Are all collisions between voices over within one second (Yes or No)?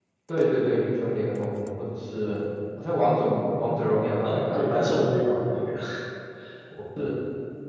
No